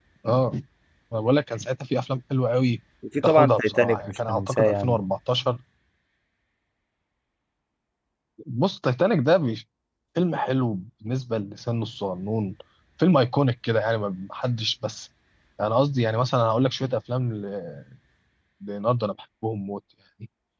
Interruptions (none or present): present